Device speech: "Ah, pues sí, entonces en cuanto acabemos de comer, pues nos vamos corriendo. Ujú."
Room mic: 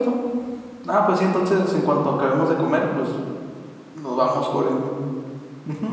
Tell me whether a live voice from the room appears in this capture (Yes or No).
No